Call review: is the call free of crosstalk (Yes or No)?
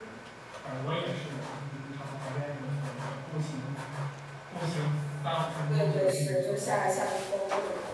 No